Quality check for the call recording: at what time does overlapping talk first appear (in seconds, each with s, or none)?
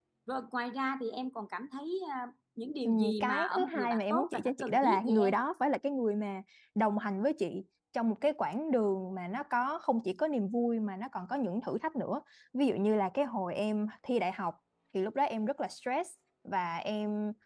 2.9 s